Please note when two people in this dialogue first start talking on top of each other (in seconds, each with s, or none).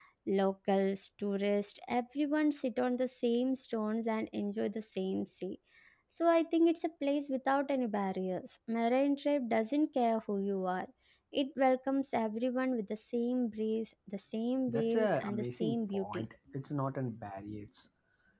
14.7 s